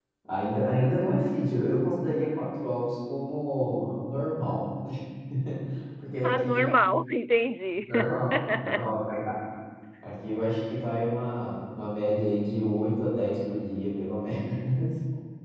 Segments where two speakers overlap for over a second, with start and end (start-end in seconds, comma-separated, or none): none